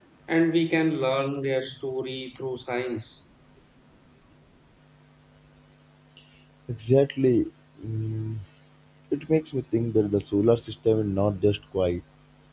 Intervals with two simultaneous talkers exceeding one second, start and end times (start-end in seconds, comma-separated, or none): none